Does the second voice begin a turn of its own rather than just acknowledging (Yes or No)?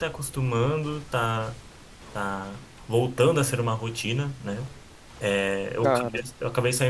No